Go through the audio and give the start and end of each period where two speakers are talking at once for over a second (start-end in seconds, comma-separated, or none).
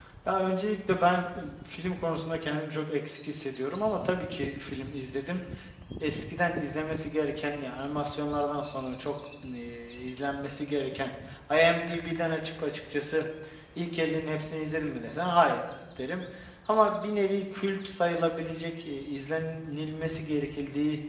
none